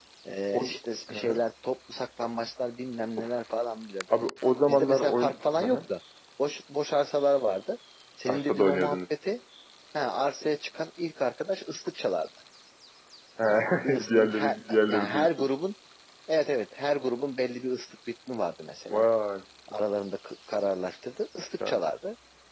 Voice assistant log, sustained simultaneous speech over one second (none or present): present